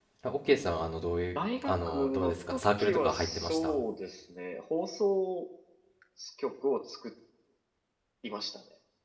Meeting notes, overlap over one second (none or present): present